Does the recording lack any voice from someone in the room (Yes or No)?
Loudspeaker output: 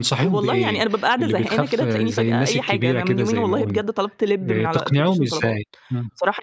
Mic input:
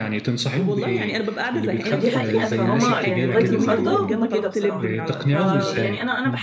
No